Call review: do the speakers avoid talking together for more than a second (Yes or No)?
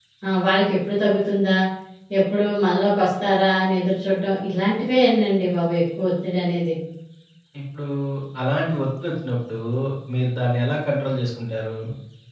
Yes